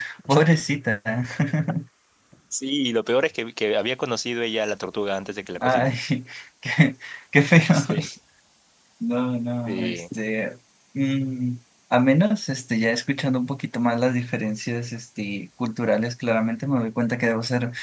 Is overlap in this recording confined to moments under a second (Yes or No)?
Yes